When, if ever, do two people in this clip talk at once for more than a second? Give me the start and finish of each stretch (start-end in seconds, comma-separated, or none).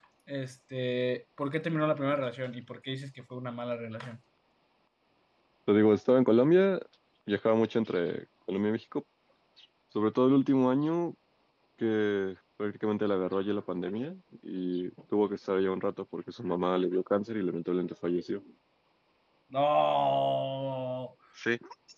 none